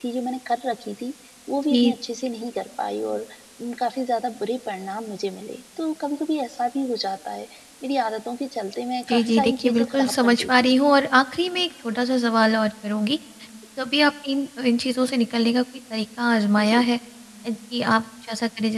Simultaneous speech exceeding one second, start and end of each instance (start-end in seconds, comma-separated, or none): 9.1-10.8